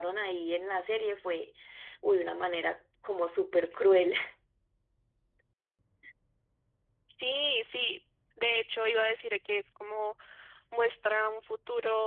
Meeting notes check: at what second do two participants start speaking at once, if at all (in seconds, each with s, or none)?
none